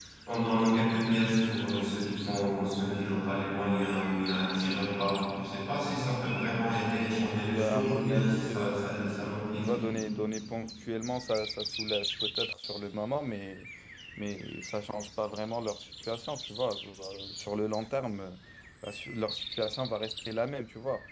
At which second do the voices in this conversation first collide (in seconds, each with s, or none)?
7.3 s